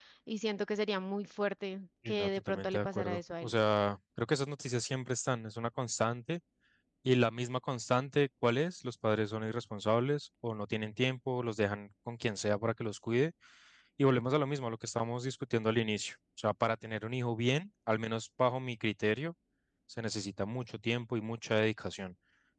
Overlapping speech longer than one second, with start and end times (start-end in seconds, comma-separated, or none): 2.1-3.5